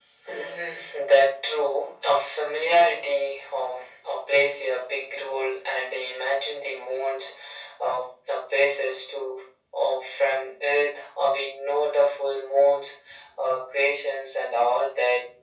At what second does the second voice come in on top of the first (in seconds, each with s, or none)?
none